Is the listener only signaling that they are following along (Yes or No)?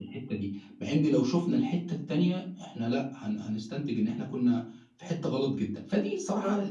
Yes